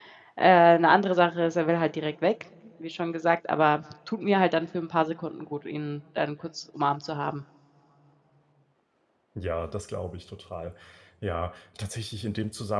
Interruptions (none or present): none